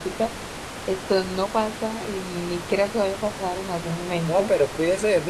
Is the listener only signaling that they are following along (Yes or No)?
No